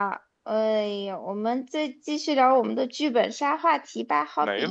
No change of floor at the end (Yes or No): No